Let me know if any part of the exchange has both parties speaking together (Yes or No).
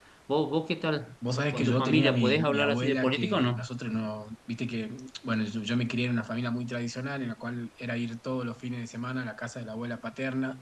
Yes